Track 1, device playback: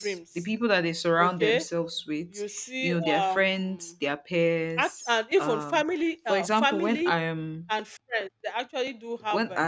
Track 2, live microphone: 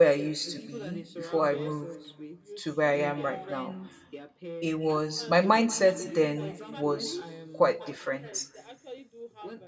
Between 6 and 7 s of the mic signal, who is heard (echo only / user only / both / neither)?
both